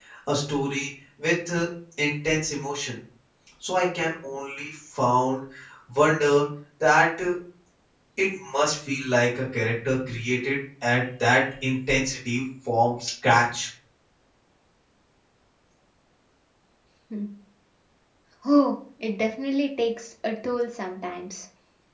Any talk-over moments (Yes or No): No